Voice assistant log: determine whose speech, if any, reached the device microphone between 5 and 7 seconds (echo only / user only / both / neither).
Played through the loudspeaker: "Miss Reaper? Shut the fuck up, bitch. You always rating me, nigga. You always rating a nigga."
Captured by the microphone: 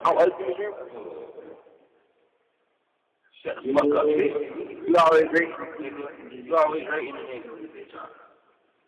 both